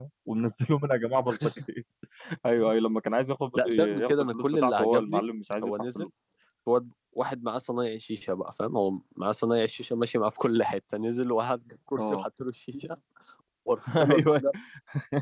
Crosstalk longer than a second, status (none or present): present